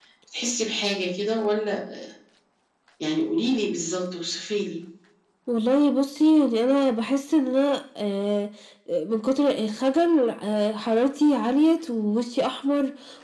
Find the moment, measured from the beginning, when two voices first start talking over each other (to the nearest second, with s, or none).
none